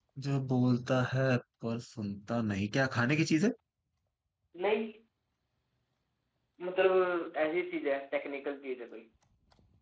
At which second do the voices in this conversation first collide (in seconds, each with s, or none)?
none